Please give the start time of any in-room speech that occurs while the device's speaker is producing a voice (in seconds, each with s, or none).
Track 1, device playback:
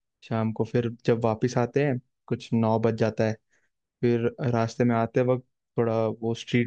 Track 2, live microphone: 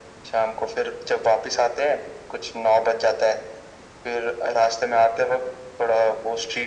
none